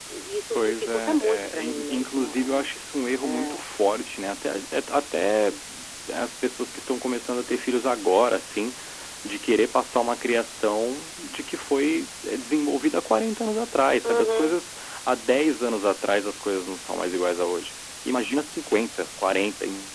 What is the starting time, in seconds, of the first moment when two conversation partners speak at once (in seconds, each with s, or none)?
0.6 s